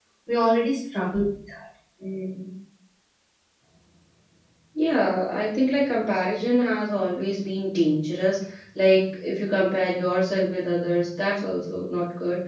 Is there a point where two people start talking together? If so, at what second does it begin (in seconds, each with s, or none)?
none